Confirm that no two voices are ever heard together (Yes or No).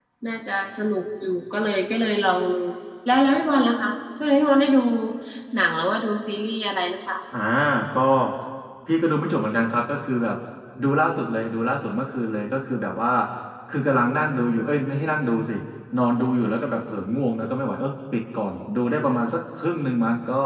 Yes